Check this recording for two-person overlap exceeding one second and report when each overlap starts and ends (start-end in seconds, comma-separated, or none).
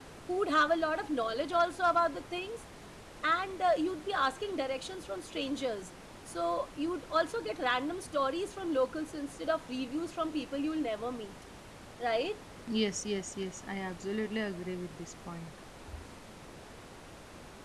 none